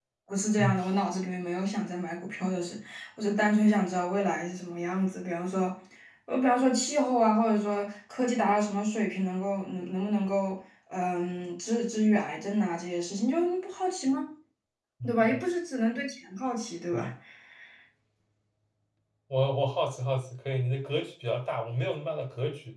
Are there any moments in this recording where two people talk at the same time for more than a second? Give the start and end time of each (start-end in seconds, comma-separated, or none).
none